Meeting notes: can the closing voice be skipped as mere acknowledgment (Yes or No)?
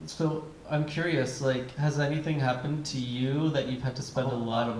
No